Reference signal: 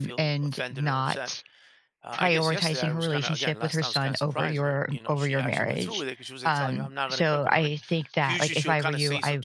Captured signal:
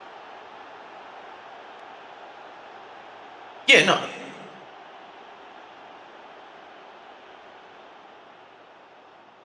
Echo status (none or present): none